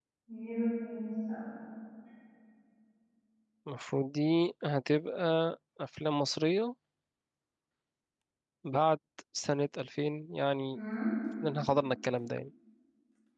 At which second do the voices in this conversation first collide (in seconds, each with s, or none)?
none